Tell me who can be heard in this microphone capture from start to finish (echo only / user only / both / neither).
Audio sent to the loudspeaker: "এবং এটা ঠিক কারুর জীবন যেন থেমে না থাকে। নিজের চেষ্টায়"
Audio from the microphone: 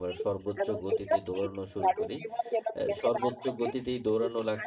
both